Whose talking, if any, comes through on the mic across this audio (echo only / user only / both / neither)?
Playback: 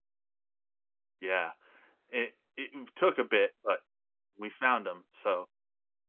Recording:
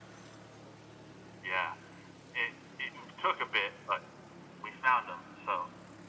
echo only